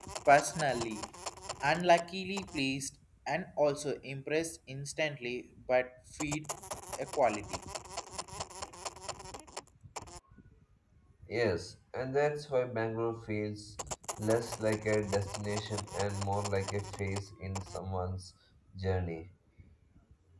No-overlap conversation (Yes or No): Yes